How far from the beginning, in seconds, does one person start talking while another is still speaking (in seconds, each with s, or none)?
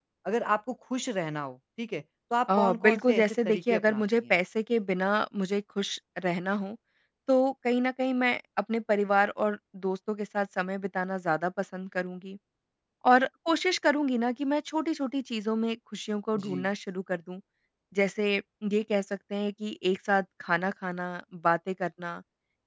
2.6 s